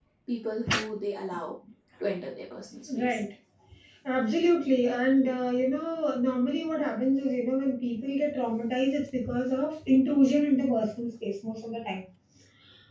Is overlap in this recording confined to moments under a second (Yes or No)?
Yes